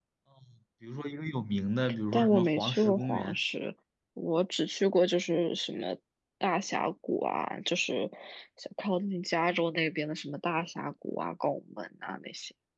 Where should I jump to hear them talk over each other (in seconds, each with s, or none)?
2.1 s